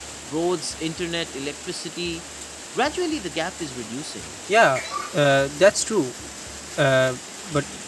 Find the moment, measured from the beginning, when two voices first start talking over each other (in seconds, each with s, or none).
none